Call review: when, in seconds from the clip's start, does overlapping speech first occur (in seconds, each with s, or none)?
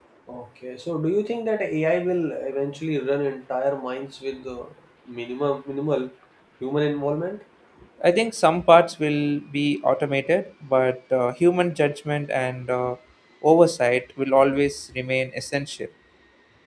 none